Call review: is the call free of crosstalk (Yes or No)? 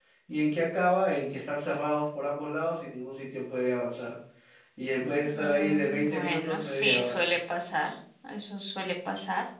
No